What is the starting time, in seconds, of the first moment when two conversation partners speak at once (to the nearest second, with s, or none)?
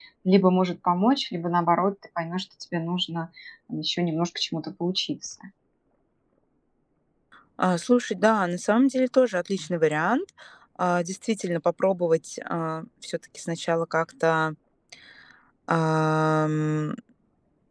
none